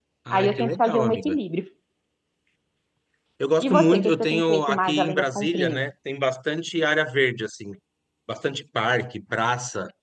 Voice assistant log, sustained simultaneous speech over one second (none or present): present